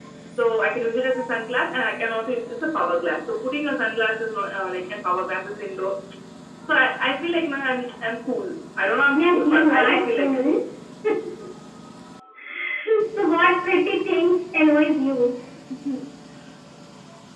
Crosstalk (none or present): present